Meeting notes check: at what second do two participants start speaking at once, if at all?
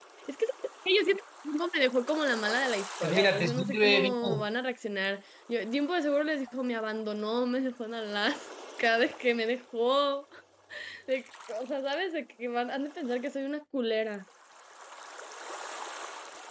3.0 s

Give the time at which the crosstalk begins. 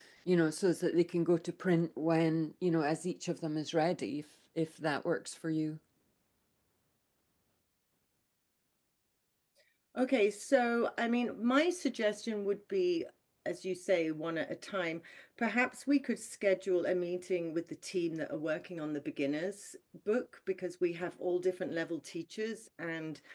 none

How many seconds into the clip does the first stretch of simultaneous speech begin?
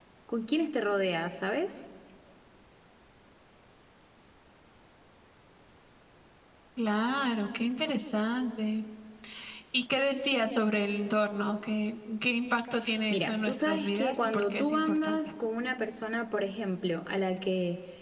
13.1 s

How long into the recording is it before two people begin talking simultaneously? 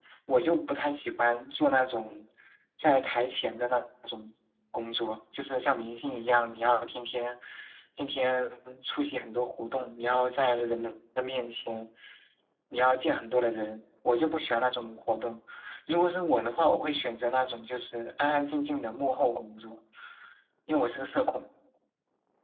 none

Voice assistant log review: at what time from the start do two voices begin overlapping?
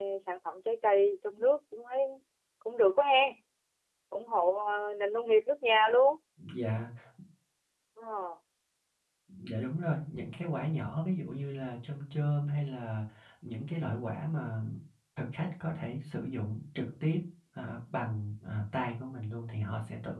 none

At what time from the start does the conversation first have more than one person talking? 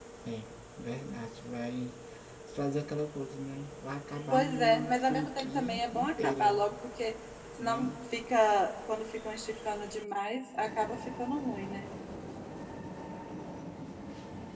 4.3 s

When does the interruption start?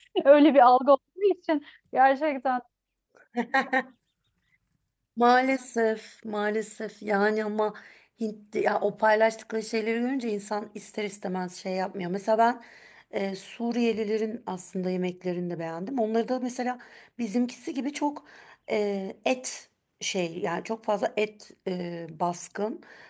none

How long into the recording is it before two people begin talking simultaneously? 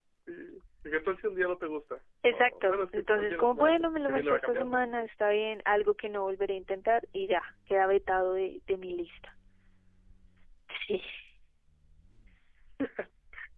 2.2 s

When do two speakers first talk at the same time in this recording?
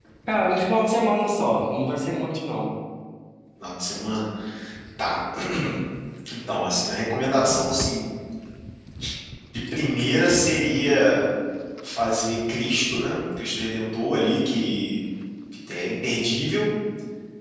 none

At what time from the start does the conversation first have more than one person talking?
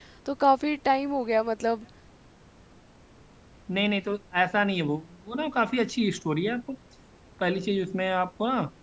none

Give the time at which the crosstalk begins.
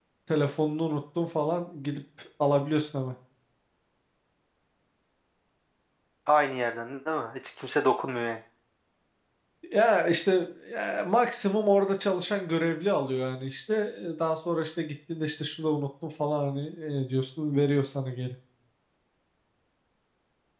none

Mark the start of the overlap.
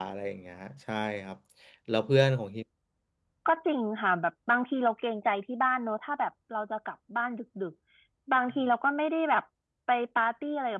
none

